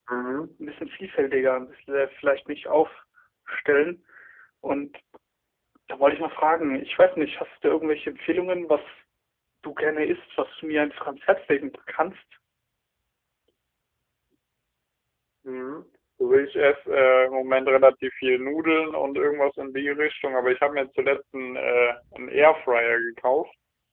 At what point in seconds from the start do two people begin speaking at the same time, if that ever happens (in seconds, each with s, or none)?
none